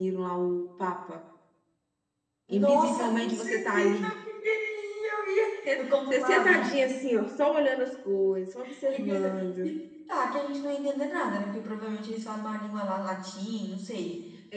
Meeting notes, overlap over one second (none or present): present